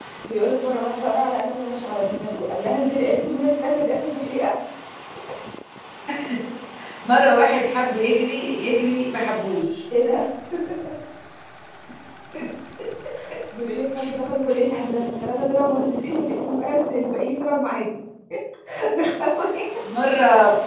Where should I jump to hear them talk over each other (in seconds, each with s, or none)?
none